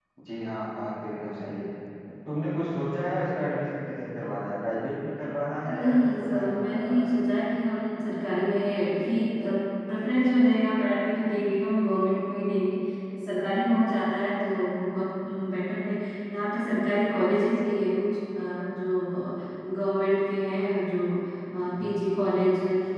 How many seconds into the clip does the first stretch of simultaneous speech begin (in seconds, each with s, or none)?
5.7 s